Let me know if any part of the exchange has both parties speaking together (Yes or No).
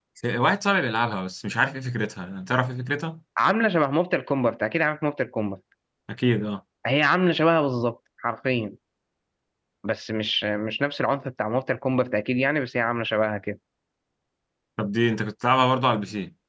No